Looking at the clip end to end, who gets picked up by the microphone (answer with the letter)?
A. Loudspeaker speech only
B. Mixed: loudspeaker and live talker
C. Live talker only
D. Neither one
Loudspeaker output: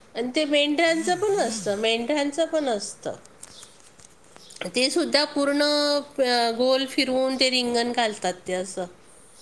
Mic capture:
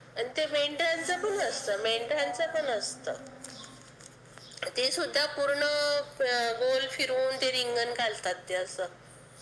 B